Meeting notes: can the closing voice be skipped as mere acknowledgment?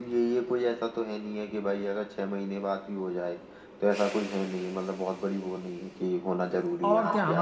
No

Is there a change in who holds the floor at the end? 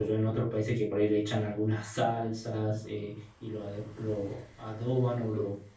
No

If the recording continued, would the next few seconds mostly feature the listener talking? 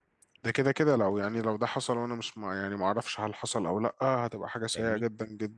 Yes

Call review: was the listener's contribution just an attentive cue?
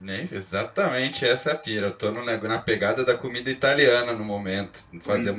Yes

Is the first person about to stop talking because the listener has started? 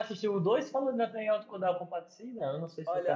Yes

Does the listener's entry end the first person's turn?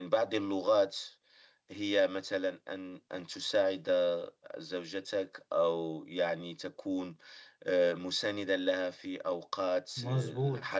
No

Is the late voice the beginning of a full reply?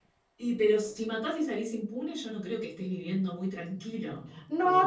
Yes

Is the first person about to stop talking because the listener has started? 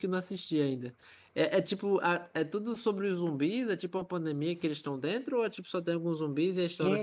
Yes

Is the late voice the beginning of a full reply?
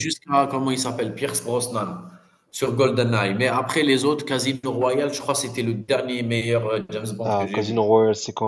Yes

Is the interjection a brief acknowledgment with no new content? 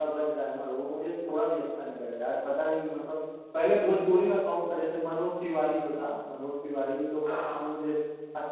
Yes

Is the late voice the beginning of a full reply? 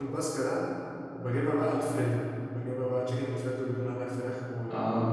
No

